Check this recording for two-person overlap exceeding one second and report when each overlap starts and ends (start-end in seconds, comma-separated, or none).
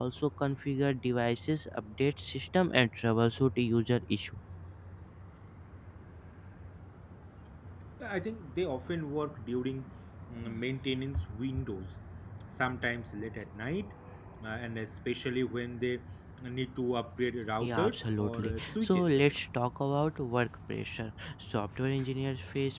17.6-19.4